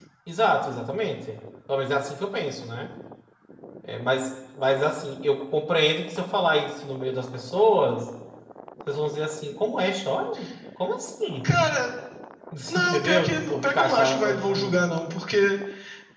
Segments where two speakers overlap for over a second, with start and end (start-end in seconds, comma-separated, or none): 12.8-14.8